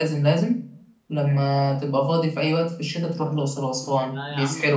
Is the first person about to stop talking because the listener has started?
Yes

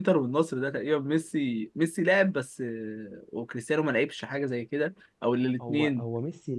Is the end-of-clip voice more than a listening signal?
Yes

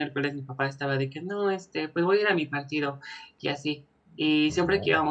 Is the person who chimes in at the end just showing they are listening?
Yes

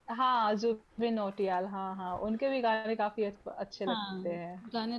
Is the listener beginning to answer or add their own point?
Yes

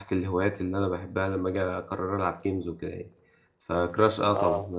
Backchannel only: Yes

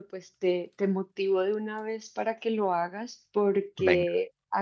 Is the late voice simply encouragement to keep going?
Yes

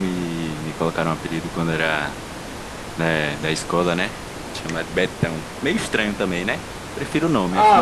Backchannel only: No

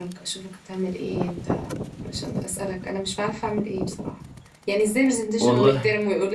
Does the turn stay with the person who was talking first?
Yes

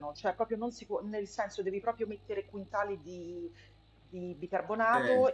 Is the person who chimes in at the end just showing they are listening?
Yes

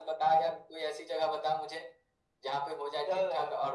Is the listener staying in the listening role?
No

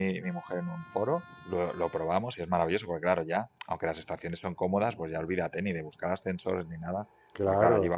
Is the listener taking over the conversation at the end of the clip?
No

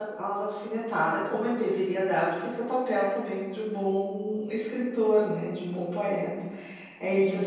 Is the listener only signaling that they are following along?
Yes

